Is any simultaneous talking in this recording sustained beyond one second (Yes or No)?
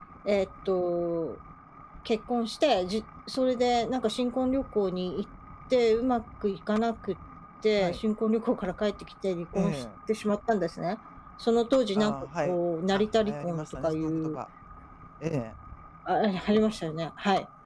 Yes